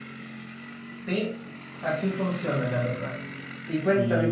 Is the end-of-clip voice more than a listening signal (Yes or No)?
No